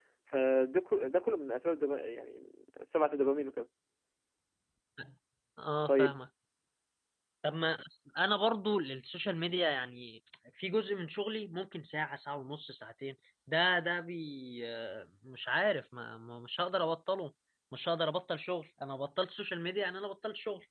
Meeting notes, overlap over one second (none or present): none